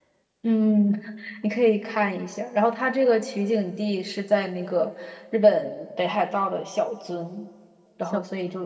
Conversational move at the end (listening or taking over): listening